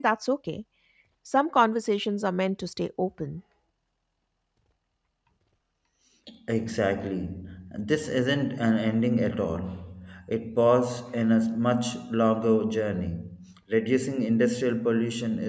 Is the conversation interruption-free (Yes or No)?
Yes